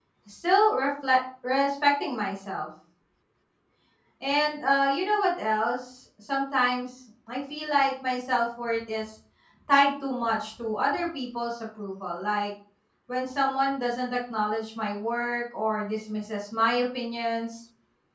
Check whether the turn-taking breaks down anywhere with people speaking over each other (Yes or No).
No